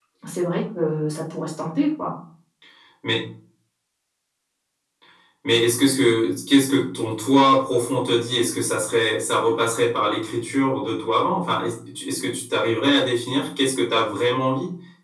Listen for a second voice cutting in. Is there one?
No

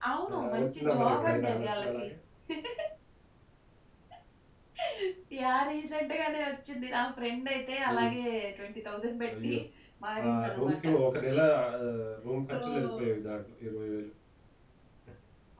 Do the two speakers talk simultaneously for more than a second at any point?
Yes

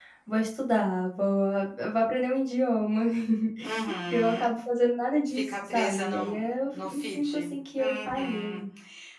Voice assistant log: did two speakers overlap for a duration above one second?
Yes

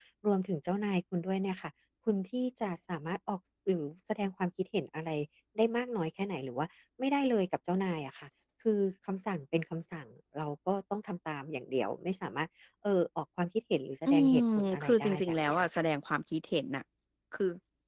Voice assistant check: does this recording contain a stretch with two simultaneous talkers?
Yes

